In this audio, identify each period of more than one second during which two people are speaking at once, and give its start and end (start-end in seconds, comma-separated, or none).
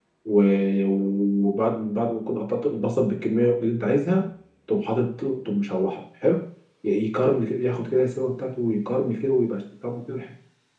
none